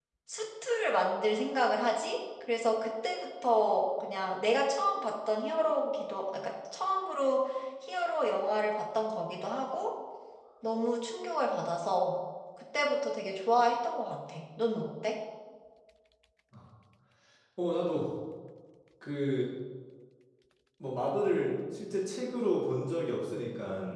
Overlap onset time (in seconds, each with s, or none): none